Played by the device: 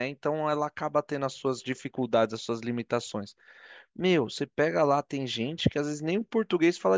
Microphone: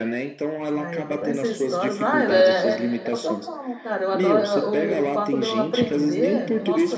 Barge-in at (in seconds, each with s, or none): 0.7 s